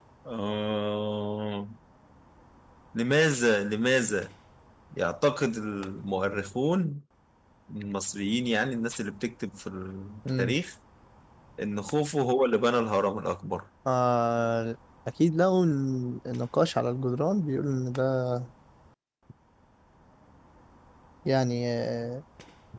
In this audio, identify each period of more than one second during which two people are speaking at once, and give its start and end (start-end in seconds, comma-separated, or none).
none